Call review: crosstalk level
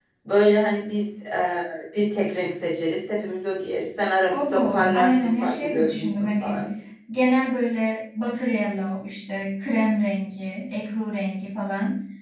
present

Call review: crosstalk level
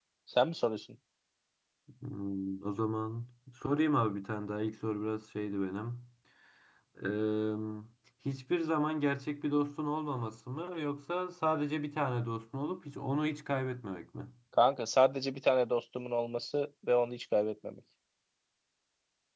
none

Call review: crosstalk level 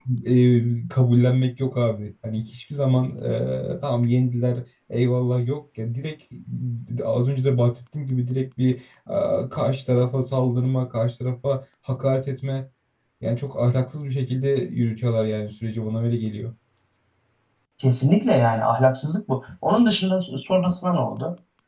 none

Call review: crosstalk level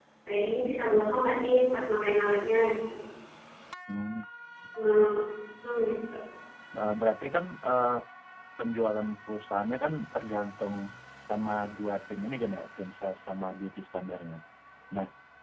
none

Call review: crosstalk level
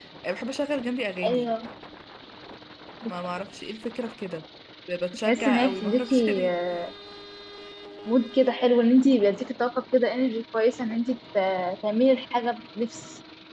present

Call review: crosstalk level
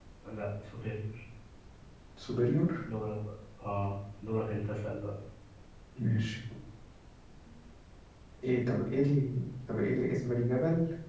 none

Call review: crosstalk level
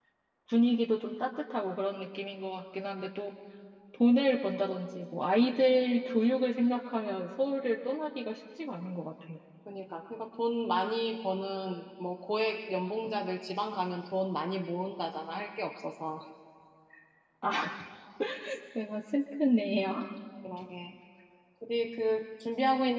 none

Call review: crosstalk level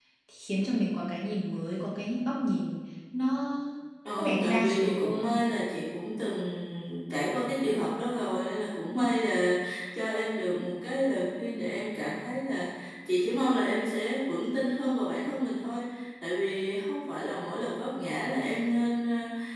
present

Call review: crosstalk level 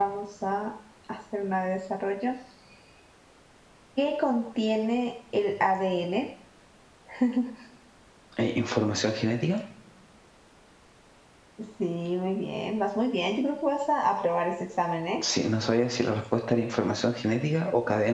none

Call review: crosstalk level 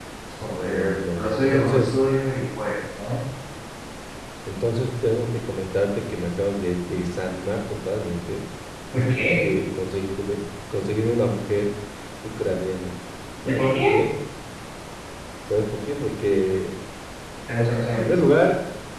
present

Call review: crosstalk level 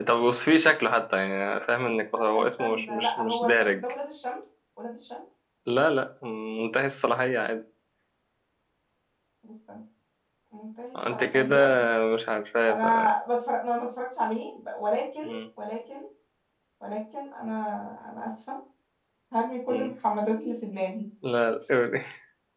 present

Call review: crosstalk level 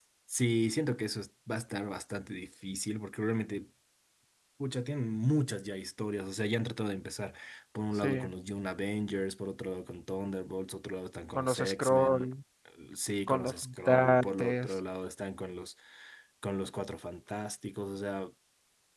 present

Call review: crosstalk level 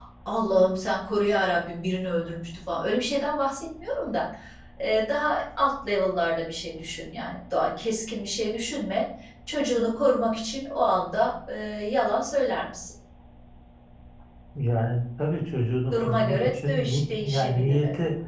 present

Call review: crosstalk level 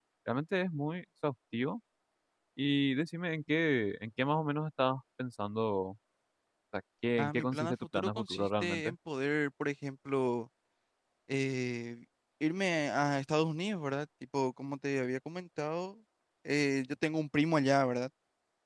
present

